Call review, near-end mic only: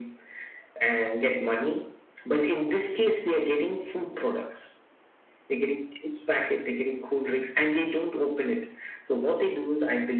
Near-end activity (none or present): none